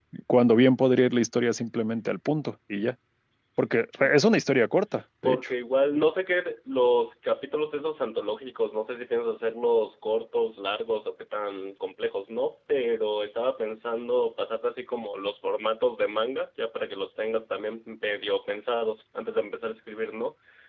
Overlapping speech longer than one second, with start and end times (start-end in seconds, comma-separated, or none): none